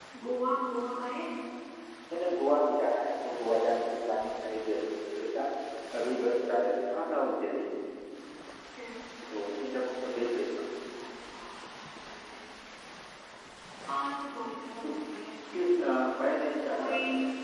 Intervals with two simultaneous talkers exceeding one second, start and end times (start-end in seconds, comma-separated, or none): none